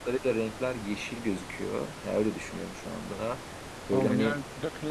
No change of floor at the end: No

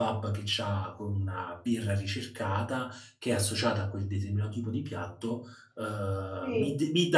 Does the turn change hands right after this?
No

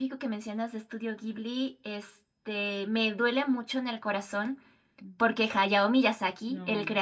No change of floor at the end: Yes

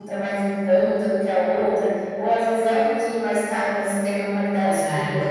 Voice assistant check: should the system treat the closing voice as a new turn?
No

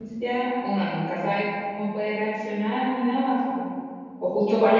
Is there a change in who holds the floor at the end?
No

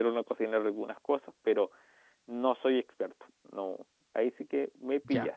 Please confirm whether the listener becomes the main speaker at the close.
Yes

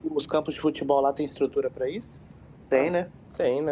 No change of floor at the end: No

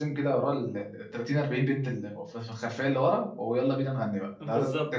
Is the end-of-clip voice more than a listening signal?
Yes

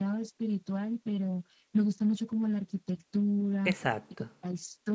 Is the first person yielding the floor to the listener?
No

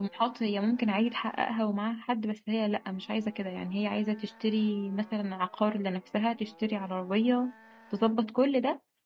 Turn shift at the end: No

